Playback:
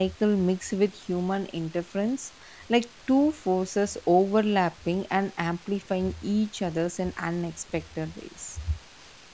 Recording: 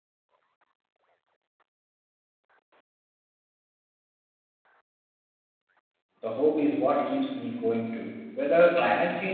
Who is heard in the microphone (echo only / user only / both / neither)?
user only